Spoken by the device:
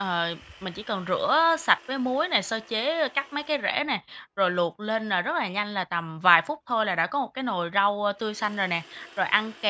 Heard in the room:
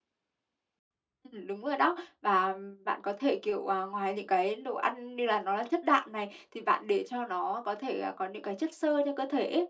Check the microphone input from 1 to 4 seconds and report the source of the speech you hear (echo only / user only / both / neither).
user only